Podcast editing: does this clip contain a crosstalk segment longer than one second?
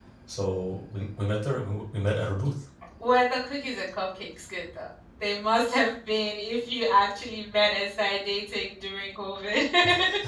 No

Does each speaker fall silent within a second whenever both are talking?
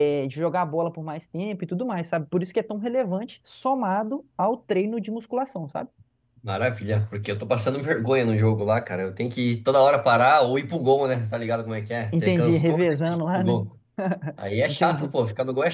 No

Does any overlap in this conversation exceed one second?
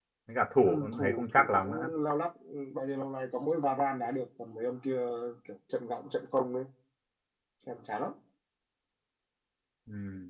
Yes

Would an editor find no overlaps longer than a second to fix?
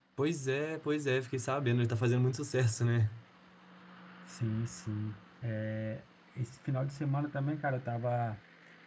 Yes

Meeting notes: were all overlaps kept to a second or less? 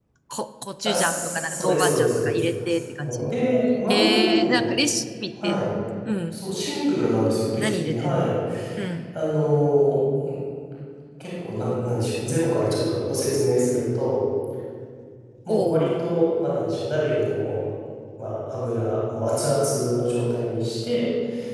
No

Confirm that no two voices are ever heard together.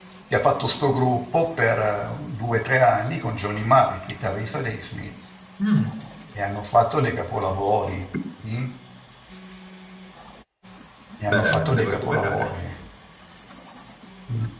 No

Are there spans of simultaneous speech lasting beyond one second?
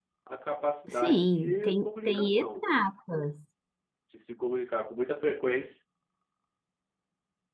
Yes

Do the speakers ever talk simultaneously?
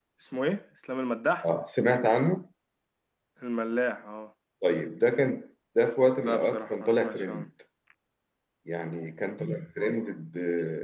Yes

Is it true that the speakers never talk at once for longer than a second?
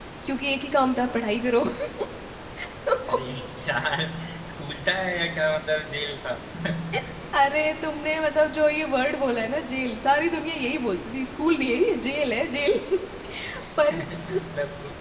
Yes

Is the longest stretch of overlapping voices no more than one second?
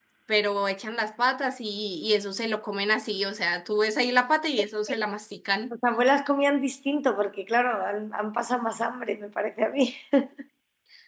Yes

